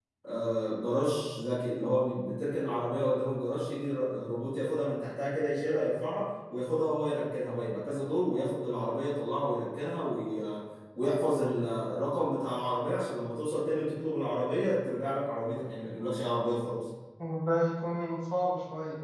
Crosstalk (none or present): none